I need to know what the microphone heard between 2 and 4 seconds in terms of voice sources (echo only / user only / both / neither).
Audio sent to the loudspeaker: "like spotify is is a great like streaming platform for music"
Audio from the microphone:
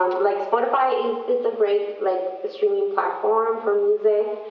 echo only